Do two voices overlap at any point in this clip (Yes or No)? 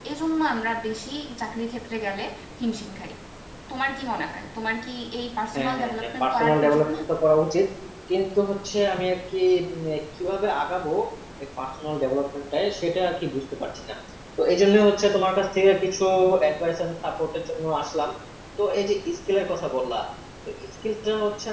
Yes